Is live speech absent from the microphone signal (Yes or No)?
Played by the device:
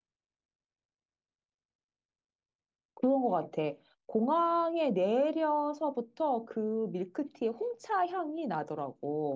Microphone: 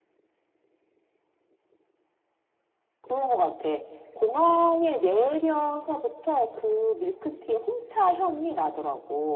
Yes